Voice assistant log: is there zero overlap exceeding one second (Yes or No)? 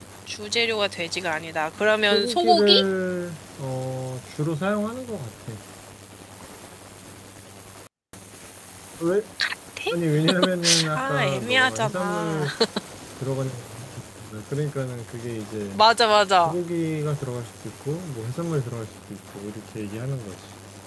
No